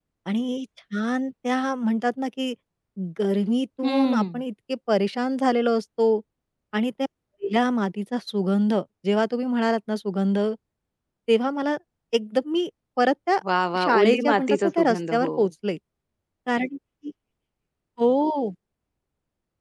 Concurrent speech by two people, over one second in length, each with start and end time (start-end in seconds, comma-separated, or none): 13.8-15.3